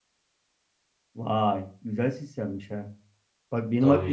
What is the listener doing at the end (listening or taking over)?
listening